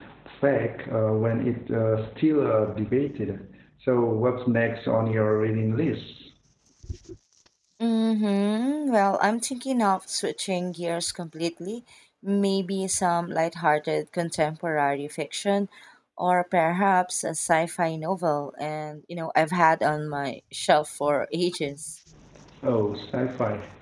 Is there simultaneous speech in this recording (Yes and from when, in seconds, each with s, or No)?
No